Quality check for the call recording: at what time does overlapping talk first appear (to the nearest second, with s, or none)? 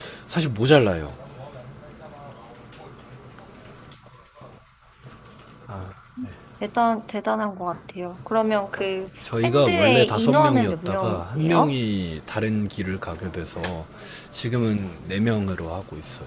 9 s